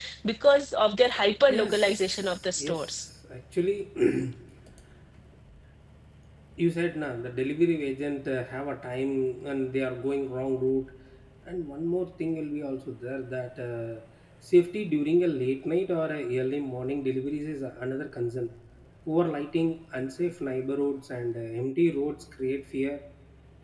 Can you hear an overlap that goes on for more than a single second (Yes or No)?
Yes